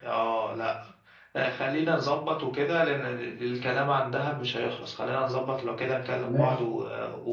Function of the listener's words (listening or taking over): listening